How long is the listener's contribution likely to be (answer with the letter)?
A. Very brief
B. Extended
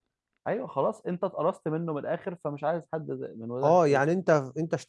B